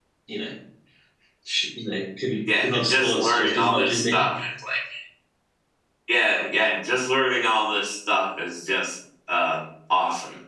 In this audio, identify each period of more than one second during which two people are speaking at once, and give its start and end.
2.6-4.3

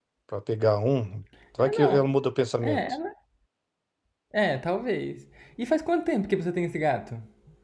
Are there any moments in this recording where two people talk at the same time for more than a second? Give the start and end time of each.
none

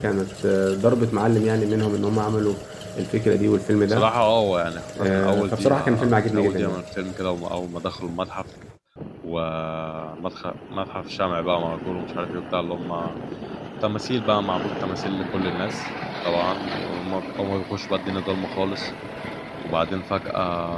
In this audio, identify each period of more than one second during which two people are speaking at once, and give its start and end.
5.0-6.8

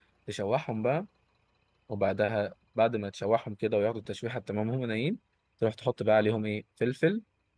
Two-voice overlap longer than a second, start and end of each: none

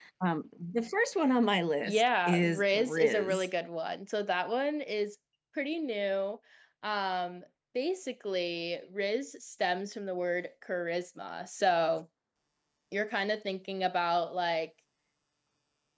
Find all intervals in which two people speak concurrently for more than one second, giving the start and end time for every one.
1.8-3.5

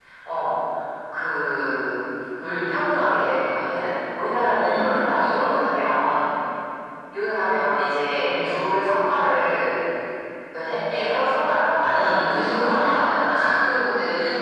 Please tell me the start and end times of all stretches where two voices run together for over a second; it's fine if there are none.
11.8-13.6

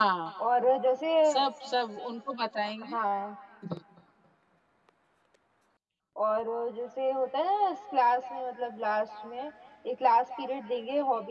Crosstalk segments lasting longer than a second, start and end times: none

